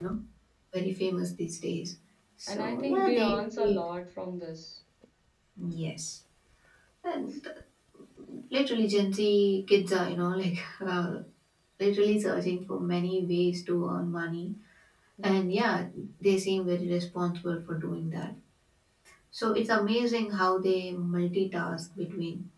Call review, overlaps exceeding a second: present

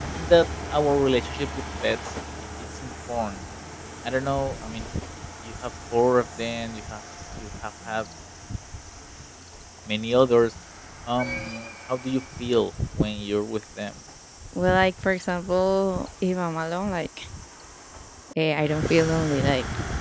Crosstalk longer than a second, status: none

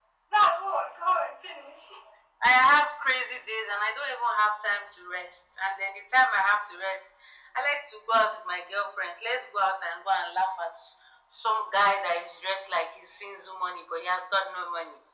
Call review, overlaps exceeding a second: none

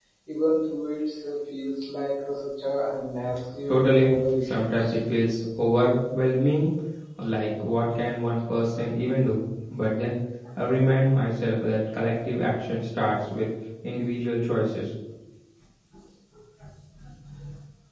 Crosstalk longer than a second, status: present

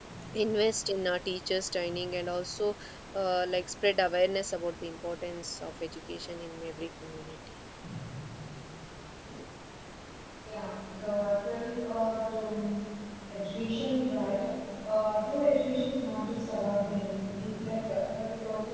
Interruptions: none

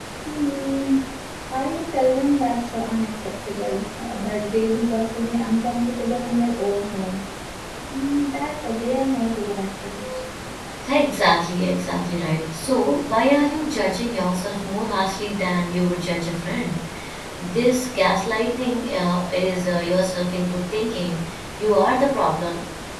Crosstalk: none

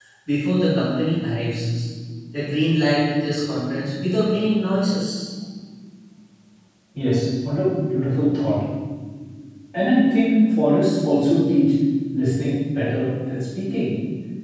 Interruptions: none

